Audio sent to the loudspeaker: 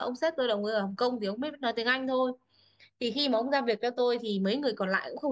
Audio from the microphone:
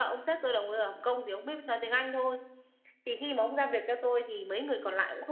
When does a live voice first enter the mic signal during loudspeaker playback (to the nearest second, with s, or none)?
none